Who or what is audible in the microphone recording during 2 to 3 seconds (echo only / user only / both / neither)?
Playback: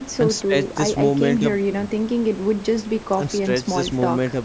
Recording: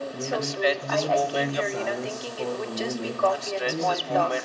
both